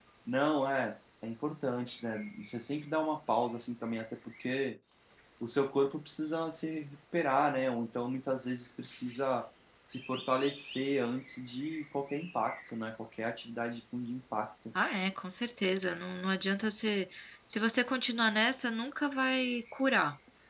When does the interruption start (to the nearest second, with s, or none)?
none